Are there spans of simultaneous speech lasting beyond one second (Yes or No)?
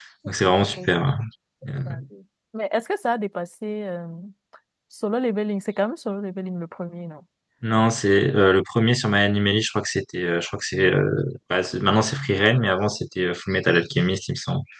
No